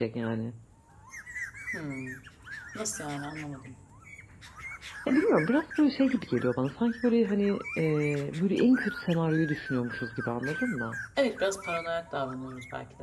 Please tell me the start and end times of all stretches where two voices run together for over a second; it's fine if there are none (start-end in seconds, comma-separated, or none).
none